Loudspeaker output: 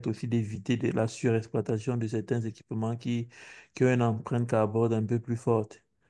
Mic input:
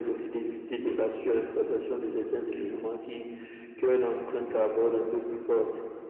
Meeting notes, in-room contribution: present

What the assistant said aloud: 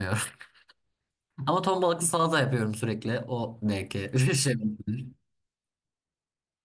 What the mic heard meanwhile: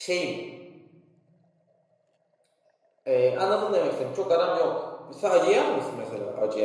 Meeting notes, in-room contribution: present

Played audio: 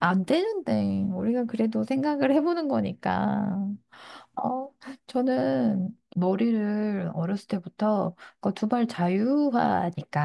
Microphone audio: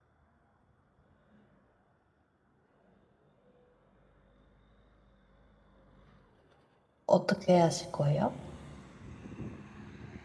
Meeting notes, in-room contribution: present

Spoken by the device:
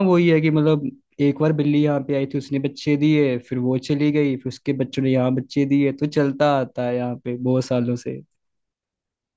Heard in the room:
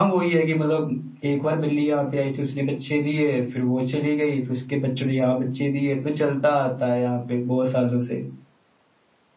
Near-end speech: none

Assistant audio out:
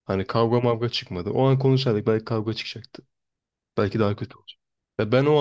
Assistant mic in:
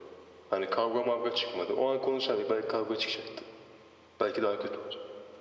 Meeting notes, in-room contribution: none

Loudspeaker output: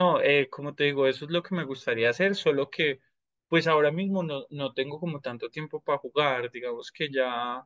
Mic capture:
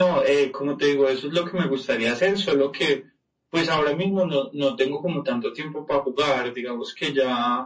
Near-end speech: none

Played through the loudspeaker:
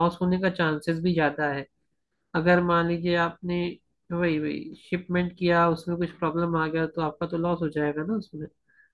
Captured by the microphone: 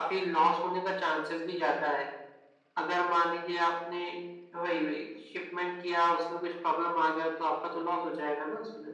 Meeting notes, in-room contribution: none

